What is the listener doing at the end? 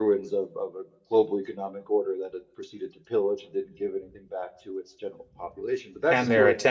taking over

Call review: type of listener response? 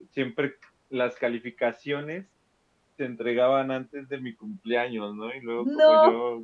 listening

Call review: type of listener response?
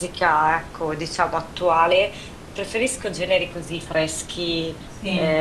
listening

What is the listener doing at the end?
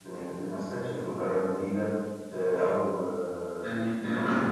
taking over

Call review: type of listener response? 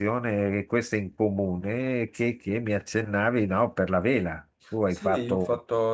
taking over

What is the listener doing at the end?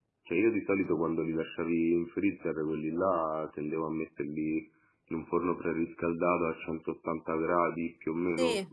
taking over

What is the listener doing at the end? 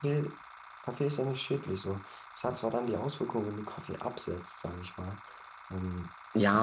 taking over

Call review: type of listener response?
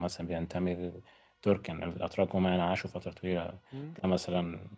listening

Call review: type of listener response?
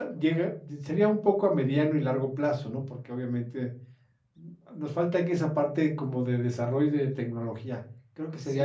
taking over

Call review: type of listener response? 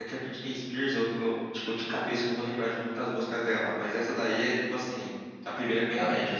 taking over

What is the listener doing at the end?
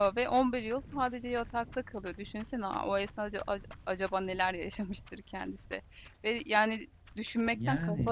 listening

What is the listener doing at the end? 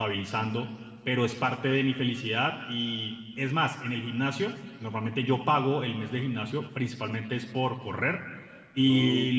listening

